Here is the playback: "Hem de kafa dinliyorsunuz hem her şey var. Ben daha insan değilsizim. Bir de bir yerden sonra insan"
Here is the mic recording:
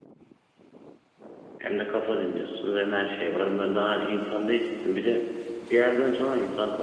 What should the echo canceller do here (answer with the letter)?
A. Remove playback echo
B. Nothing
A